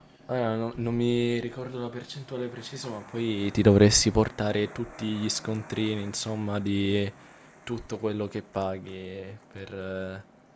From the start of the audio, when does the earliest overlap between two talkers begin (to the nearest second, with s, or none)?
none